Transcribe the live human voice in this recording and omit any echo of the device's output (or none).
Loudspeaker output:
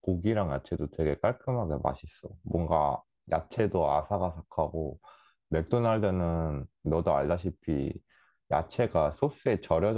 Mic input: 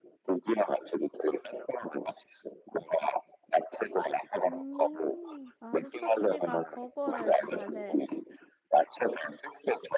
음, 마스터치가 버거를 잘해.